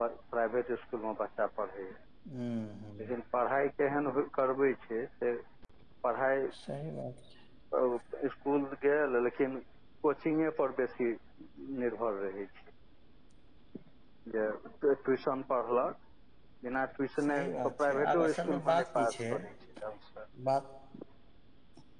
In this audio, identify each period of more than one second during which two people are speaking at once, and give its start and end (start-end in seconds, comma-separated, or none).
17.3-19.3